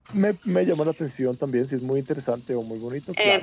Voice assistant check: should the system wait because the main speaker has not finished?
No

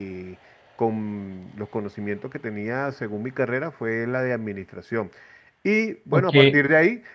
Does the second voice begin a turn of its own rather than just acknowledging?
No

